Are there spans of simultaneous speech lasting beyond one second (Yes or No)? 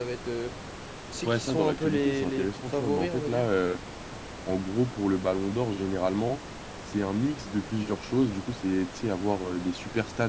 Yes